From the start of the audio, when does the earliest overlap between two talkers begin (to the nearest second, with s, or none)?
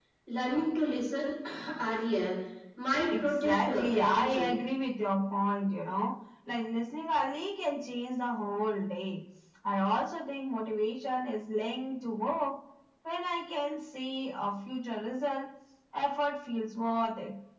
3 s